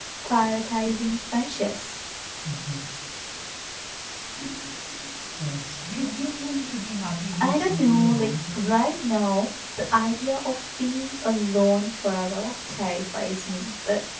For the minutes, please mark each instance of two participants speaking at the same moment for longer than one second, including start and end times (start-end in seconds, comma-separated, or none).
7.4-8.8